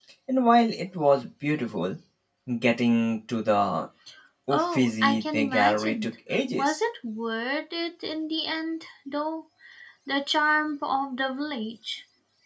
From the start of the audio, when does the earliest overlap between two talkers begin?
4.5 s

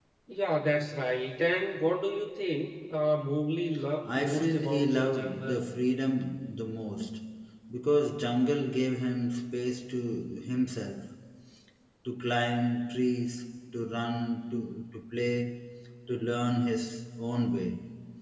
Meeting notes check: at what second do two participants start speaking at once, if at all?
4.0 s

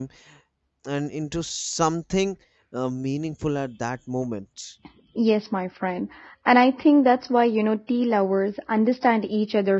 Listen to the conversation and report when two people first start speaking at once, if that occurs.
none

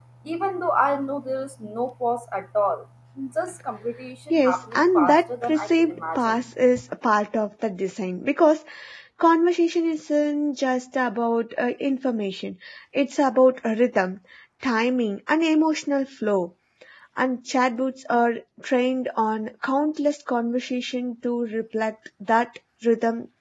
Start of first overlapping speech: 4.3 s

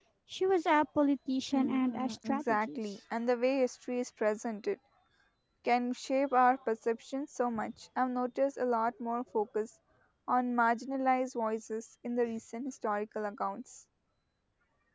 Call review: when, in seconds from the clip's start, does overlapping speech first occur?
1.5 s

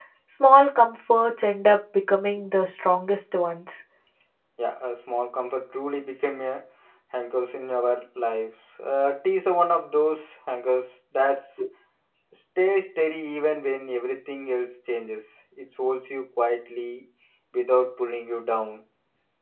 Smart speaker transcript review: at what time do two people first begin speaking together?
none

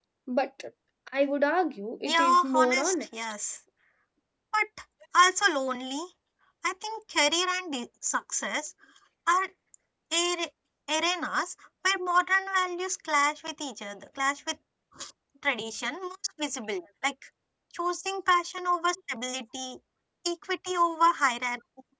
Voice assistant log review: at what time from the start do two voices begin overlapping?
2.0 s

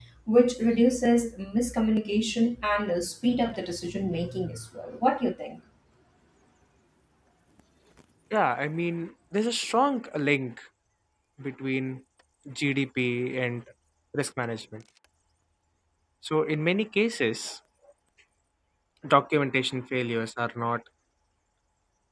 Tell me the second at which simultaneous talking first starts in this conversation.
none

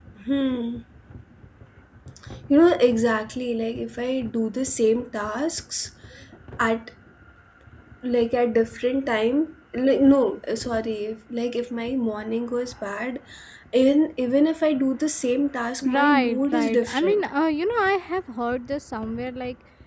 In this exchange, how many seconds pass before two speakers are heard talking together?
15.8 s

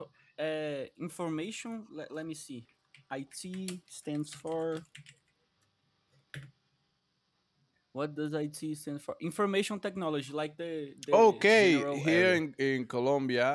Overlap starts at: 11.1 s

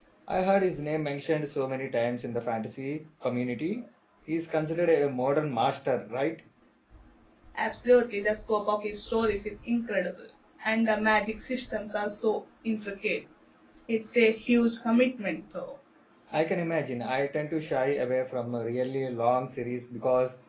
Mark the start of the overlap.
none

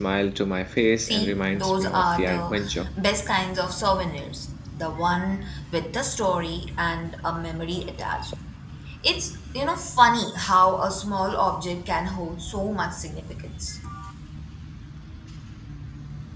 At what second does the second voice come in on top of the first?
1.0 s

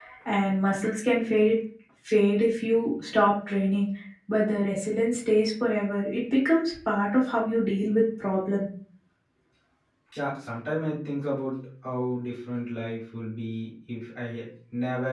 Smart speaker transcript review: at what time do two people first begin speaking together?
none

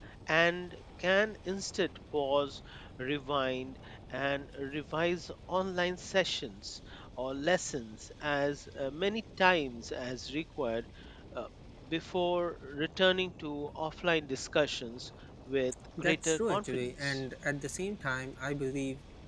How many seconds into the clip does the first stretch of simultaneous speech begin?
16.0 s

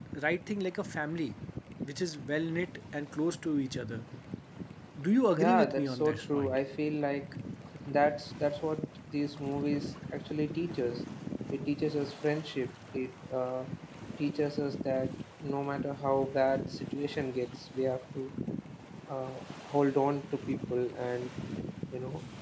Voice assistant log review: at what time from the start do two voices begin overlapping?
5.4 s

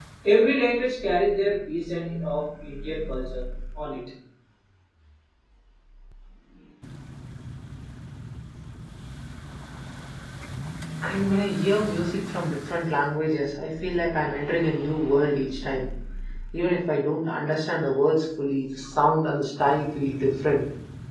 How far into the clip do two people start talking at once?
none

